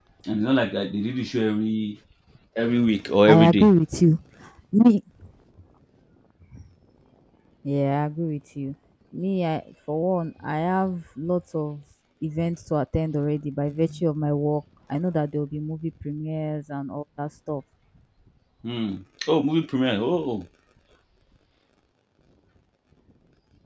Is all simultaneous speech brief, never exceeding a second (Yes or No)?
Yes